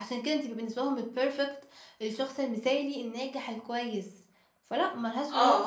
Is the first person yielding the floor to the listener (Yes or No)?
Yes